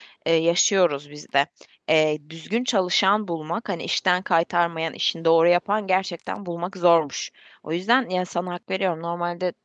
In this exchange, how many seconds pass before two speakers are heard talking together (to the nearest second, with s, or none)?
none